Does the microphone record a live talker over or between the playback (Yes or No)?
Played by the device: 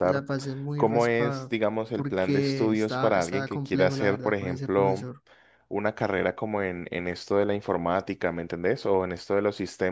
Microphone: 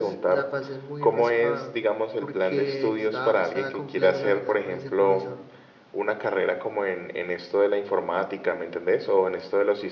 No